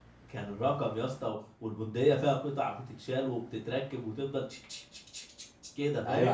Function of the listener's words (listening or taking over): taking over